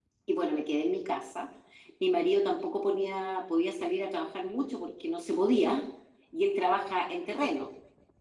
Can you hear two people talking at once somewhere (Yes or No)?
No